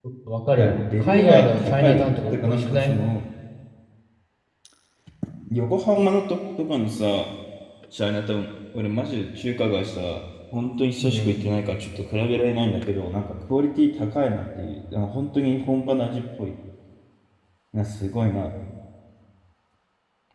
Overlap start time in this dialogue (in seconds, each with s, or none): 0.6 s